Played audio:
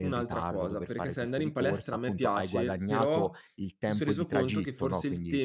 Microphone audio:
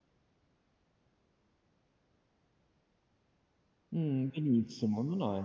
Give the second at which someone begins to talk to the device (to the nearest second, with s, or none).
4 s